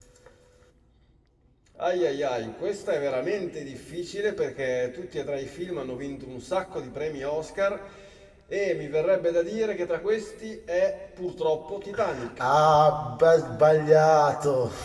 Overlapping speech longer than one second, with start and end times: none

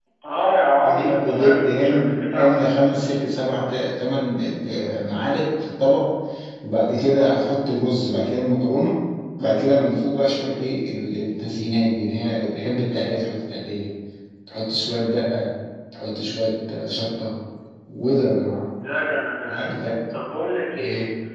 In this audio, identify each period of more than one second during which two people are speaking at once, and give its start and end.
0.8-2.6

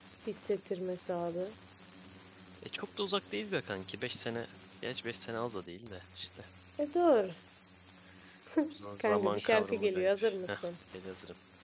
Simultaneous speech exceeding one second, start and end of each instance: 9.0-10.7

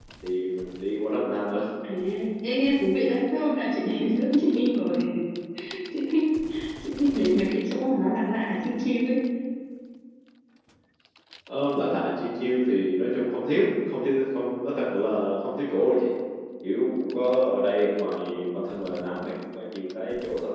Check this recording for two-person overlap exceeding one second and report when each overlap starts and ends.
none

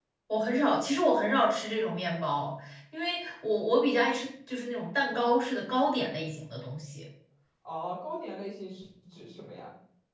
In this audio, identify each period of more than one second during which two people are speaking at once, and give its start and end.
none

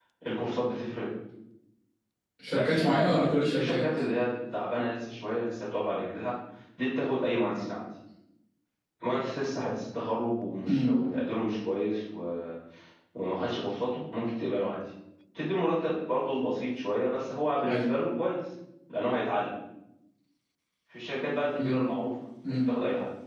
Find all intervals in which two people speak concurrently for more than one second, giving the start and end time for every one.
2.5-3.9

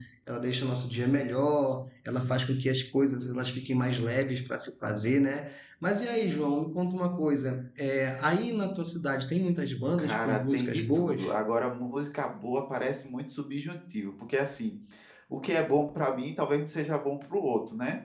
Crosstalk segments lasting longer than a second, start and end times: 10.0-11.2

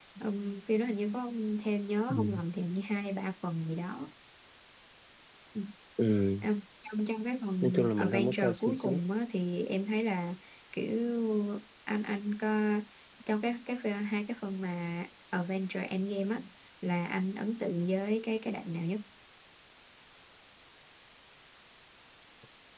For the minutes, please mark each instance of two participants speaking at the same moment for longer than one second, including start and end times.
7.6-9.0

